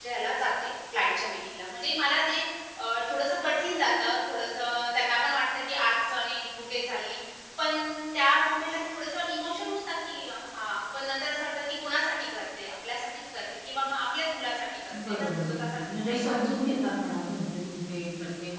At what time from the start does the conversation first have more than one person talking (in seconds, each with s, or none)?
14.9 s